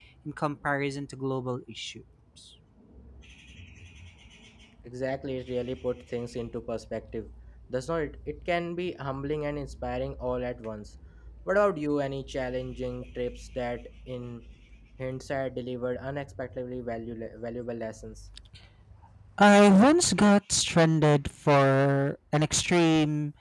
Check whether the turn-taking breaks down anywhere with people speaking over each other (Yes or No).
No